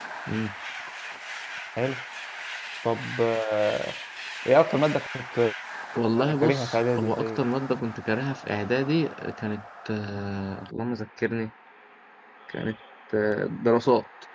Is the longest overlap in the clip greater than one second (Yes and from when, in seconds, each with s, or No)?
Yes, from 6.2 s